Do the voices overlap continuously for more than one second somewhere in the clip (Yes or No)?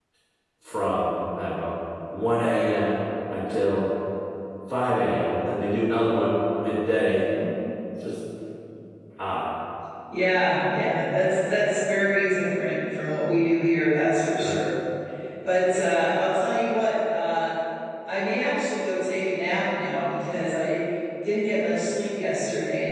No